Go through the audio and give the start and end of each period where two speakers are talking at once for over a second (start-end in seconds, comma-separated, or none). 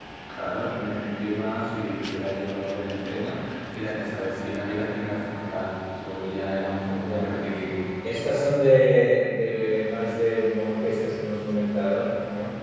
none